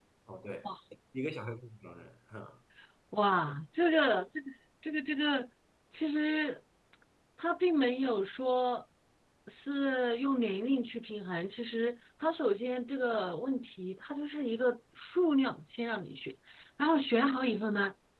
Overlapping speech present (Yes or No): No